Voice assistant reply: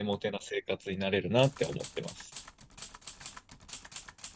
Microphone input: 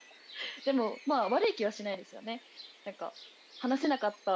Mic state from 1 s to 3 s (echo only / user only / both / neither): user only